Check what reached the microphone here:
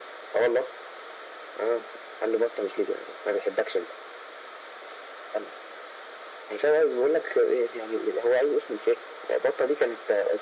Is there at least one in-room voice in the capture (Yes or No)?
No